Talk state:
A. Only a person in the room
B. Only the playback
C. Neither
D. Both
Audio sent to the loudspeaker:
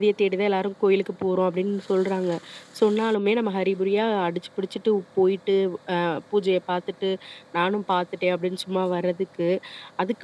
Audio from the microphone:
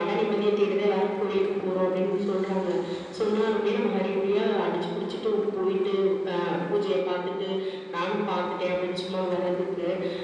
B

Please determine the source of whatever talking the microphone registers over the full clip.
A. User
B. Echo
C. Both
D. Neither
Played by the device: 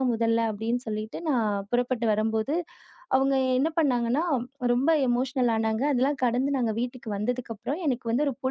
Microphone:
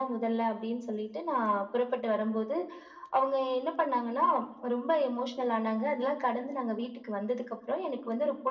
B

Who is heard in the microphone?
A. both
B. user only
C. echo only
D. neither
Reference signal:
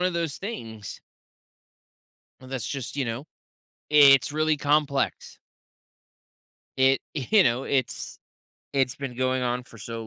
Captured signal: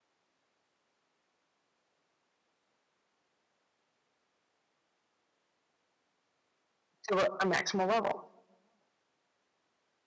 B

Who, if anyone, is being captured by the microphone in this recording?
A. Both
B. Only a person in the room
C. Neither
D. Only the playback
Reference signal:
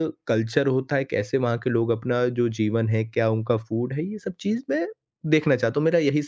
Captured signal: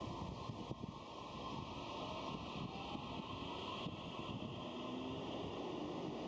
C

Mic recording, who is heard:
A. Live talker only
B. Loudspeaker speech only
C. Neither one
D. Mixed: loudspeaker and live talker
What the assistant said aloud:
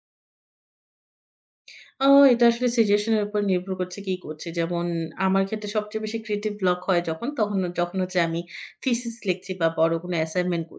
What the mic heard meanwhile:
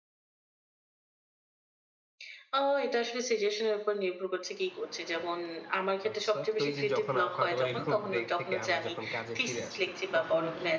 D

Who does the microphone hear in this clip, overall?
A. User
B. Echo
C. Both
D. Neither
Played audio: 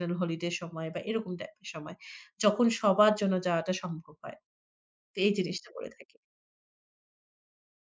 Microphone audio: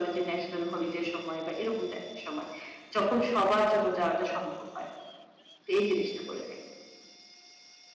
B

